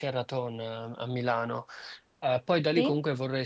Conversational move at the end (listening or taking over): listening